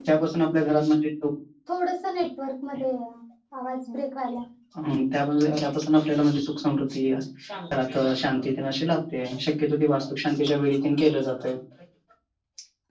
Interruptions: none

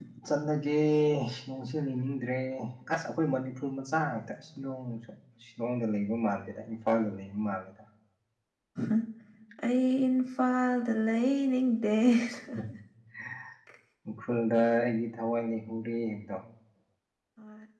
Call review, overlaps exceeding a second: none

